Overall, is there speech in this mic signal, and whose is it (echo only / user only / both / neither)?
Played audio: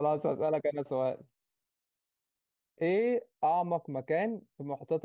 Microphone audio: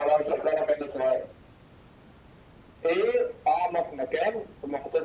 echo only